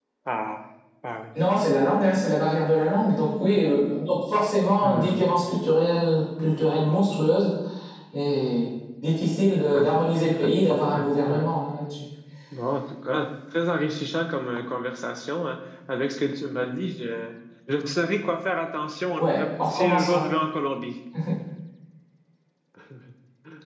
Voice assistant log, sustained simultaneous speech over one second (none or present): present